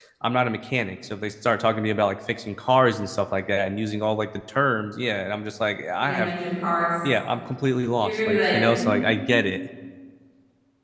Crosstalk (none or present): present